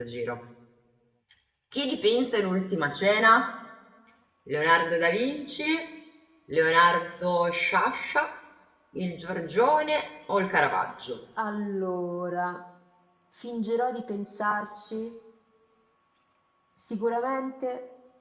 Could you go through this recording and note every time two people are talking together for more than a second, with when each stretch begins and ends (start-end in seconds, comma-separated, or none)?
none